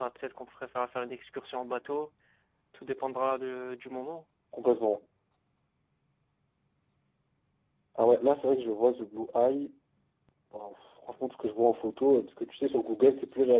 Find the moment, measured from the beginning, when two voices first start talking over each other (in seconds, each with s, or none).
none